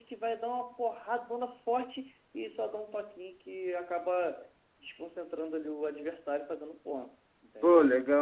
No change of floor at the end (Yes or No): No